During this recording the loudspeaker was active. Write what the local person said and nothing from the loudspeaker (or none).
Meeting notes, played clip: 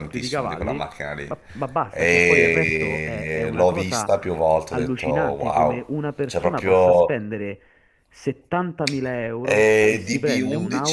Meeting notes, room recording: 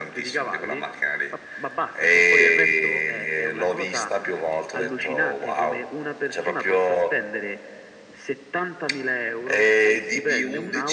none